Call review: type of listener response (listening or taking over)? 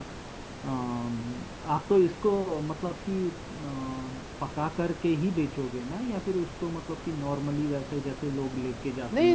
taking over